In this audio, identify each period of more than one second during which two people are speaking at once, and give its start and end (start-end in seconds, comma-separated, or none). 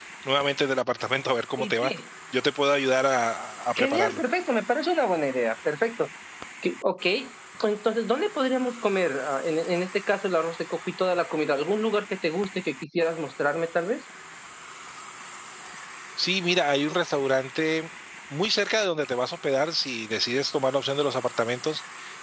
none